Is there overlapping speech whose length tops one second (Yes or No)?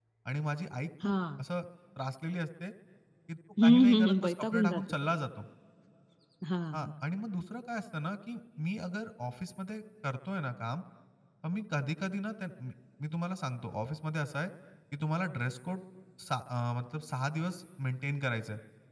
Yes